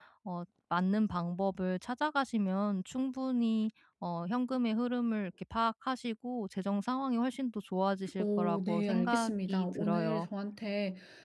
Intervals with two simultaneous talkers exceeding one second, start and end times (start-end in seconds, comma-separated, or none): 8.2-10.3